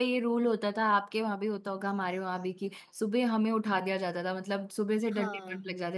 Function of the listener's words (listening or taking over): listening